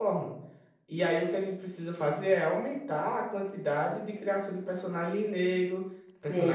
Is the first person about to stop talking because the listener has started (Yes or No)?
Yes